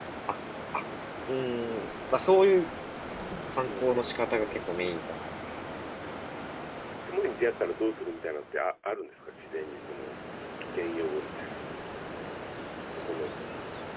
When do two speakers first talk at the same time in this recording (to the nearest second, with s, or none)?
4 s